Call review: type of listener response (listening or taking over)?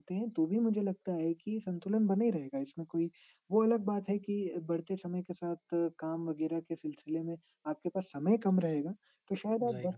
listening